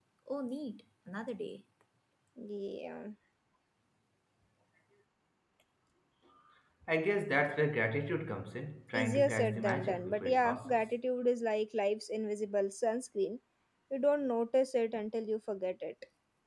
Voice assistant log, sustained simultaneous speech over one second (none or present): present